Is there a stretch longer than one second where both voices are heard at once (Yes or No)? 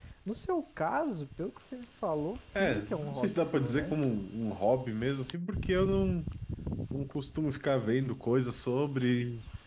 Yes